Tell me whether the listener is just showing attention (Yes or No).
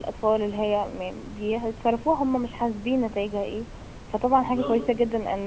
Yes